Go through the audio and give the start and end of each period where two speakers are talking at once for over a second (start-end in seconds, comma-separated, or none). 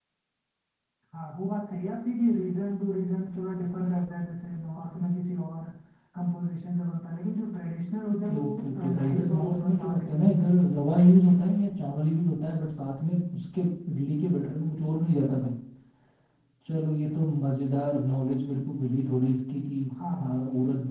8.2-10.6